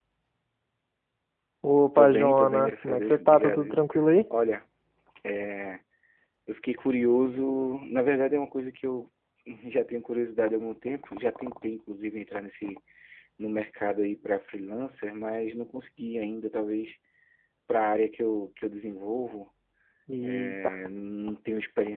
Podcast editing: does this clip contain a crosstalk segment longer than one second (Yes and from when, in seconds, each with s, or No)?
Yes, from 1.9 s